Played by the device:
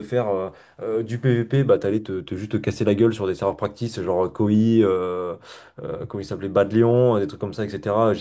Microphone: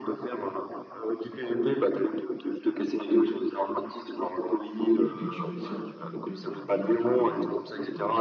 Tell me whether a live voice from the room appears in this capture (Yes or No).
Yes